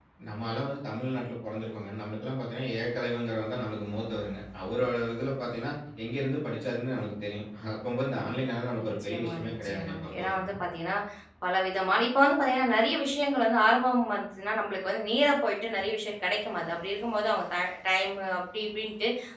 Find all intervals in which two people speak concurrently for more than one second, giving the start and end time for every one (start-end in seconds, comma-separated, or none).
9.0-10.6